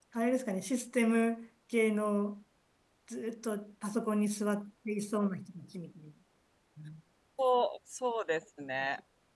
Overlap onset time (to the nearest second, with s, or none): none